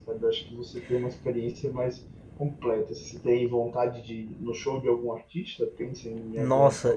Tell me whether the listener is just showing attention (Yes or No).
No